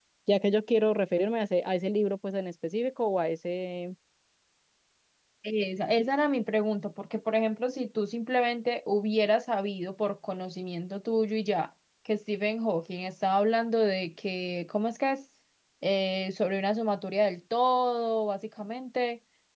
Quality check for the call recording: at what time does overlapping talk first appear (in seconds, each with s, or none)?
none